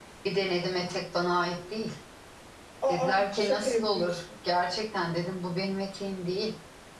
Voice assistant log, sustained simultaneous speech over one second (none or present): present